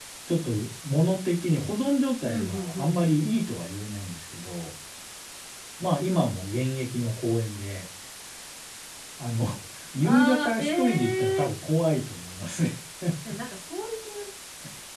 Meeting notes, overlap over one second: present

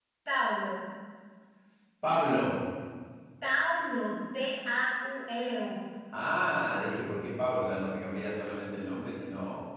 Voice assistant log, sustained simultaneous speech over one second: none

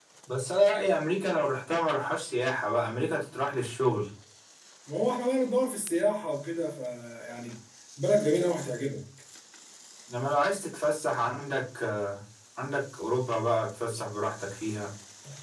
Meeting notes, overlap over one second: none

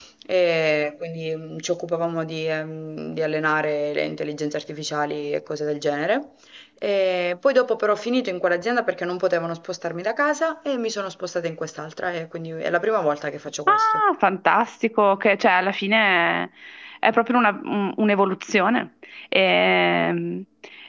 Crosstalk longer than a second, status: none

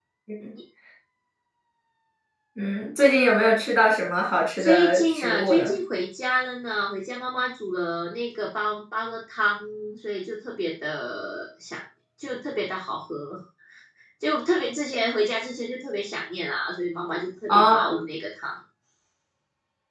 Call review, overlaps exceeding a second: present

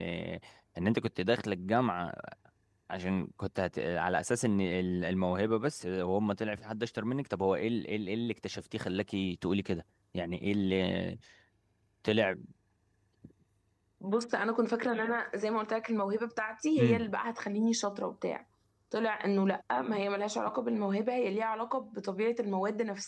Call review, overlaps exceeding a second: none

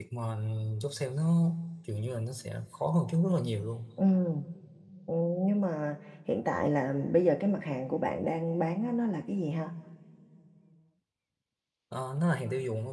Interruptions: none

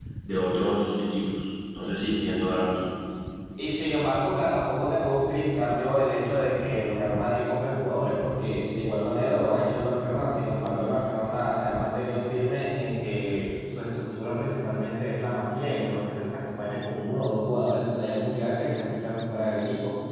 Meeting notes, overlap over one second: none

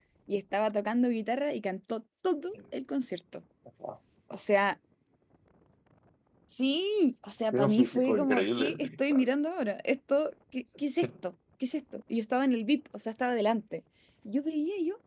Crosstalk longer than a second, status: present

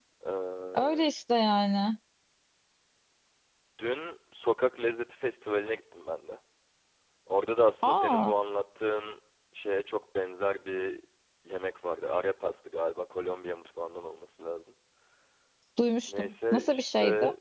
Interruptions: present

